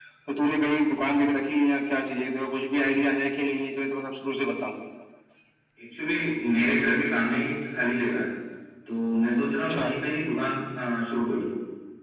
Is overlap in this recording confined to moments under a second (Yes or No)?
Yes